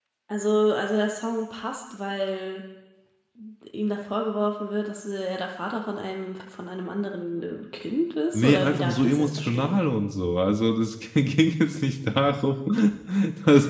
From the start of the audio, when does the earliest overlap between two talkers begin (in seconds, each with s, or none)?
8.3 s